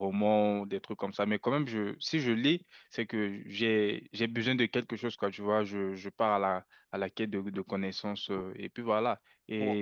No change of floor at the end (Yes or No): Yes